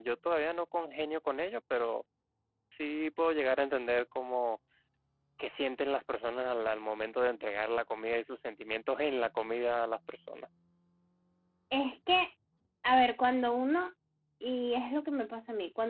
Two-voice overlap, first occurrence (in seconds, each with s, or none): none